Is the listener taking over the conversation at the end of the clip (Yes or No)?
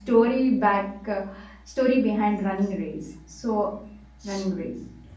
Yes